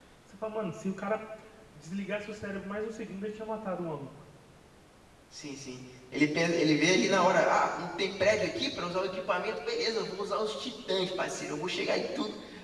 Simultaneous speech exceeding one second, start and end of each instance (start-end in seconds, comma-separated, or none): none